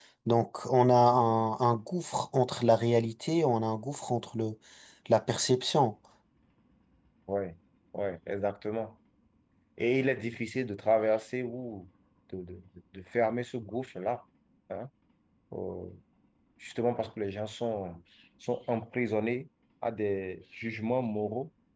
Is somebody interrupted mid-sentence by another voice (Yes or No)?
No